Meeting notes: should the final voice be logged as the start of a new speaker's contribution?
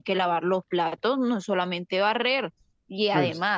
No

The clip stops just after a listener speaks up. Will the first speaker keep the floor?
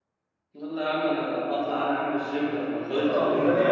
No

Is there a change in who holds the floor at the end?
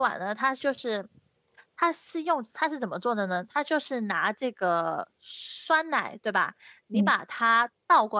No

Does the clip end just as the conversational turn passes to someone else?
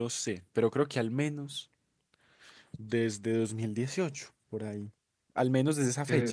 No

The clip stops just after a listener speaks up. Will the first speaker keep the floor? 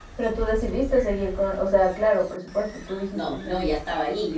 No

